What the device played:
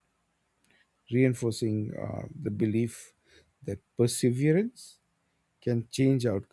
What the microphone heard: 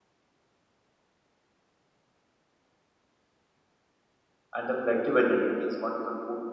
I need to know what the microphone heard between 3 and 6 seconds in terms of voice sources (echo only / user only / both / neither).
user only